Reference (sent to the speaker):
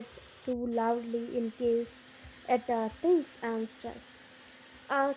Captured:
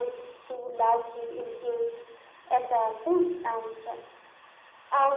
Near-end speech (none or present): none